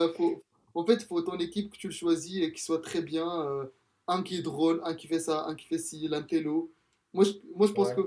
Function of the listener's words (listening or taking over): listening